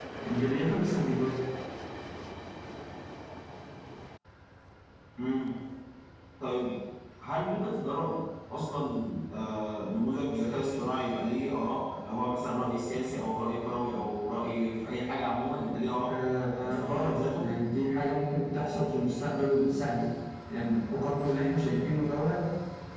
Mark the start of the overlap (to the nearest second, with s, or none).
16 s